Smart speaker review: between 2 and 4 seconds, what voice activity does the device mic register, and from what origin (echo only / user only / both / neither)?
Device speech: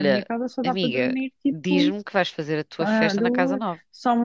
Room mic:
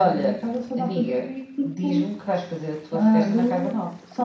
echo only